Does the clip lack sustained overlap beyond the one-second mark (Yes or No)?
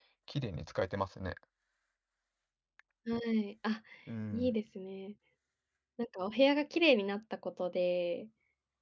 Yes